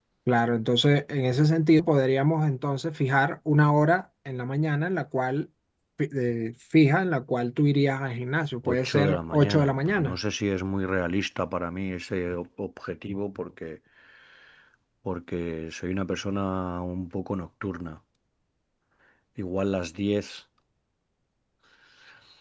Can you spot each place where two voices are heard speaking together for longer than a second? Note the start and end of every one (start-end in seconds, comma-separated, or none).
8.6-10.2